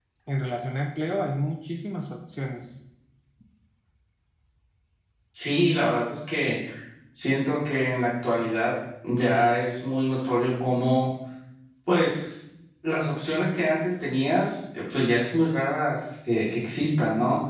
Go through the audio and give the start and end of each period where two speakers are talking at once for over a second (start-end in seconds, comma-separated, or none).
none